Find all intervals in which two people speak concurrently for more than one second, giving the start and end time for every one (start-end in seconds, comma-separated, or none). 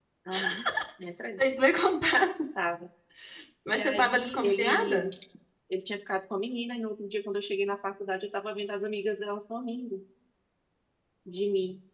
3.7-5.1